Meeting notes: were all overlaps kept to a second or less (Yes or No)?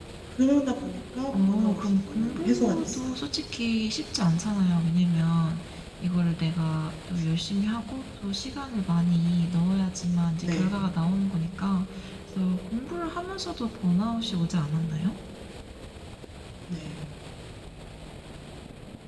No